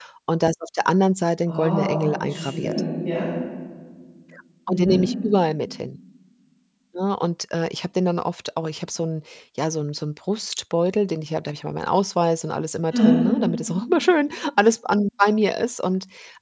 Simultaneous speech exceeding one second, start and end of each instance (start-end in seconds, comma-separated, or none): 1.5-2.8